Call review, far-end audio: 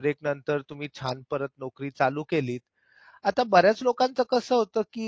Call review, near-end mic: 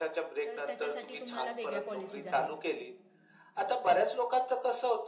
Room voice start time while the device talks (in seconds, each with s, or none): 0.4 s